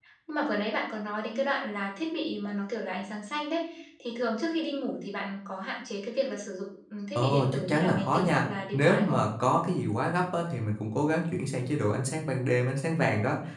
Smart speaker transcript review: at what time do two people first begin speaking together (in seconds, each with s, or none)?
7.2 s